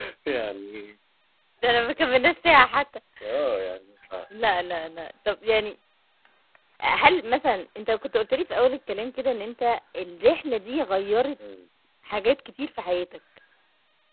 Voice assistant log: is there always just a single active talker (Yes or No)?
Yes